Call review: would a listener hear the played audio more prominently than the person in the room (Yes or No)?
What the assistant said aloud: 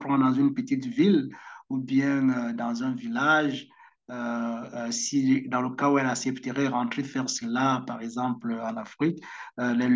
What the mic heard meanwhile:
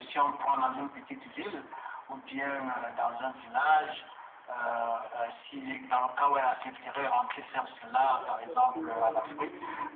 Yes